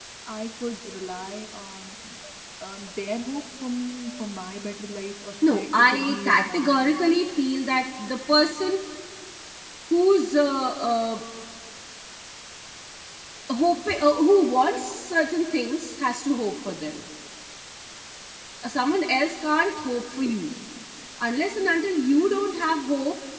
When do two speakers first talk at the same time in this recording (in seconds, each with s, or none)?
5.4 s